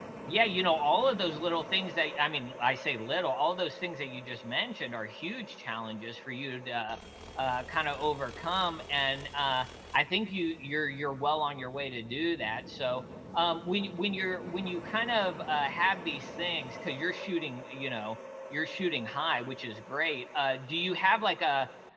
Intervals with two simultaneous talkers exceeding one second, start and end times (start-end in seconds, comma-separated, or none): none